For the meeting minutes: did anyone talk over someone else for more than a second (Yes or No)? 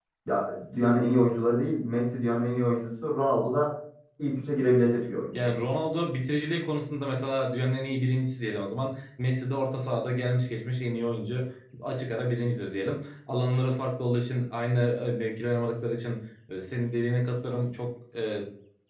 No